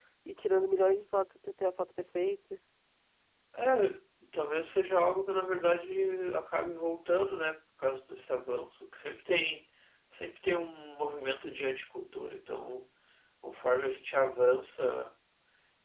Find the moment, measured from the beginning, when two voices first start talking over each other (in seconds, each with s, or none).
none